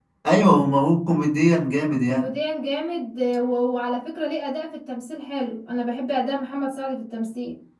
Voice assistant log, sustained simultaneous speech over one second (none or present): none